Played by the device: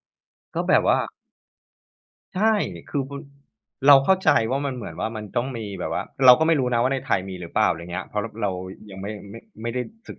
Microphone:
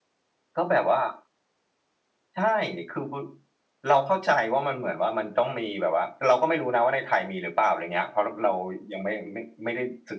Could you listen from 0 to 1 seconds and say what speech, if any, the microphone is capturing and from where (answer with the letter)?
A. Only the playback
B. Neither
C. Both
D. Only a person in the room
A